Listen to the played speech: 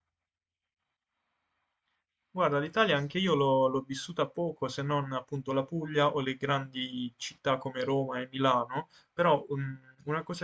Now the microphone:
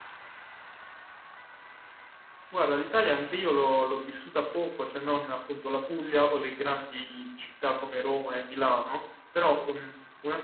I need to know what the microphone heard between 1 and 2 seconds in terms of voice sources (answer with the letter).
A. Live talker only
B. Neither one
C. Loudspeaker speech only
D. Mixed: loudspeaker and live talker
B